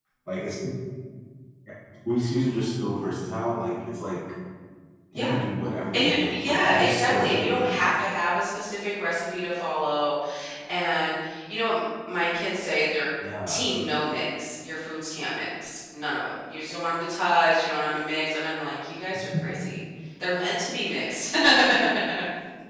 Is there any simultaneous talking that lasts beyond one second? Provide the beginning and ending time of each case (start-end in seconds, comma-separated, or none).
5.9-7.5